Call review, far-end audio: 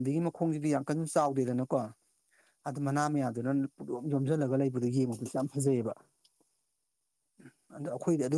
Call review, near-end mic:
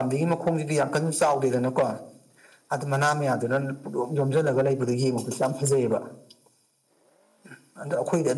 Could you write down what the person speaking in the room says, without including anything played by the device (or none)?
none